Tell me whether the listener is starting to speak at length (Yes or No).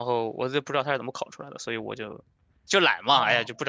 Yes